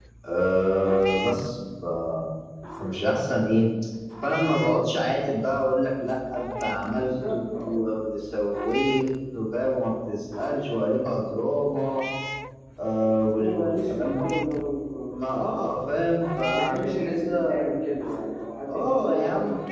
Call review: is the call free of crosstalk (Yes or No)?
No